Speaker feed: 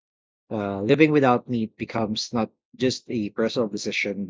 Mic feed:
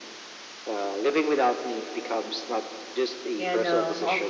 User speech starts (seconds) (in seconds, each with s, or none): 3.4 s